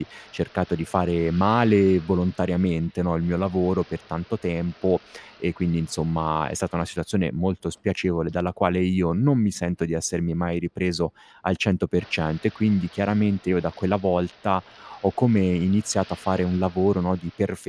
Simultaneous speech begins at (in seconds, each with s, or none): none